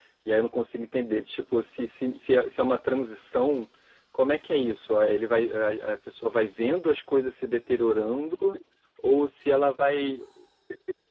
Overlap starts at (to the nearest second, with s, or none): none